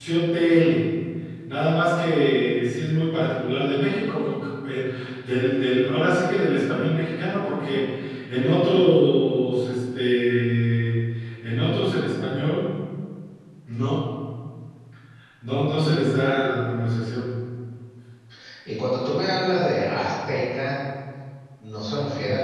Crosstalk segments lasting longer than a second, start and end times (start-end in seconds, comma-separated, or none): none